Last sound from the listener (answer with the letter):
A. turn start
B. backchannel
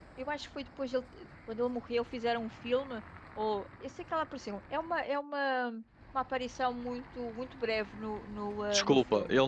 A